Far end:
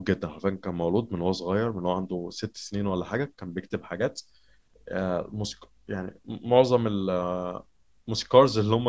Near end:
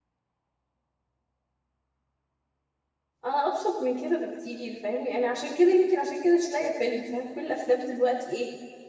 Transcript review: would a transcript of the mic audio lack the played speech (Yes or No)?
Yes